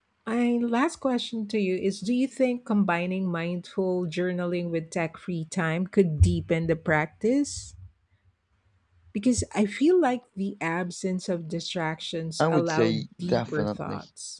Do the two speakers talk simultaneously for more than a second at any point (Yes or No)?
Yes